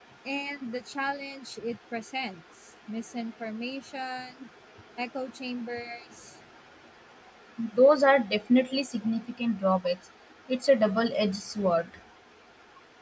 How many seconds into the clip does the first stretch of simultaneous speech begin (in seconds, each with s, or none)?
none